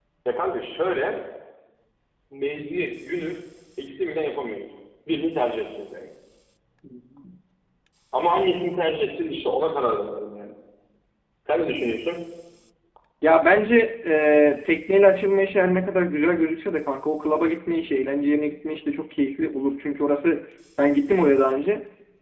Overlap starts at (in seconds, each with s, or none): none